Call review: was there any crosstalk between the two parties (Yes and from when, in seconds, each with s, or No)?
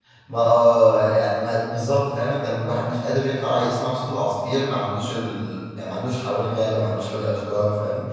No